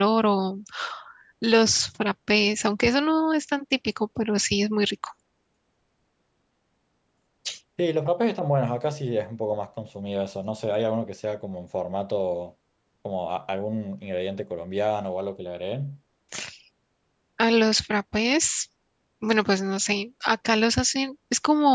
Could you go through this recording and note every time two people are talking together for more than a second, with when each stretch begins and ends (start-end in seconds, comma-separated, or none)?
none